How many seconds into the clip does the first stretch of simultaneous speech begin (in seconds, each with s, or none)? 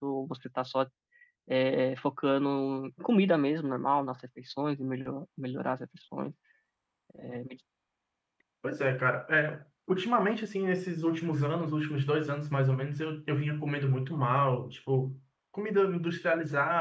none